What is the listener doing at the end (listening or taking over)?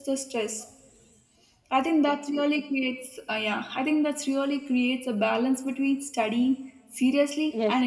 taking over